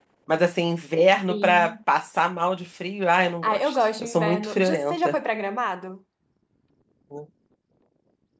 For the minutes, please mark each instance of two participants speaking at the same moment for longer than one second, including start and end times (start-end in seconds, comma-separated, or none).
3.4-5.2